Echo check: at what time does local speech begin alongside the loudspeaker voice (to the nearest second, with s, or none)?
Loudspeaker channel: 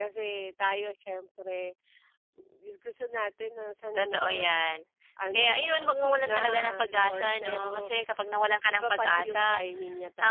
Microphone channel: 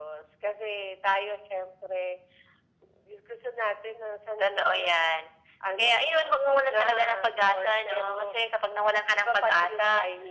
none